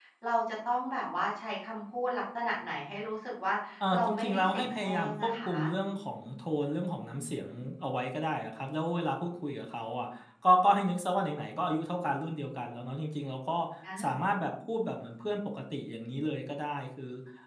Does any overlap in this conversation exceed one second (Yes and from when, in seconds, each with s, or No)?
Yes, from 3.9 s